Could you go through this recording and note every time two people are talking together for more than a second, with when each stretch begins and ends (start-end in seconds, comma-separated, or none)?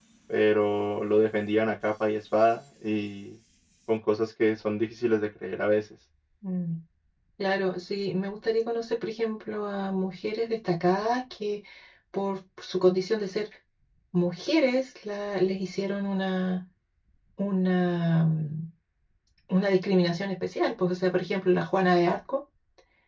none